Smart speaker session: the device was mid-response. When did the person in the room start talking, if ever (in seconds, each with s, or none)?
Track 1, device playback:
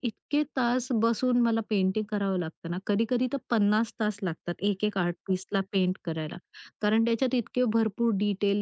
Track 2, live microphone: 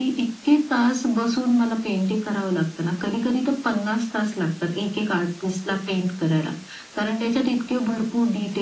none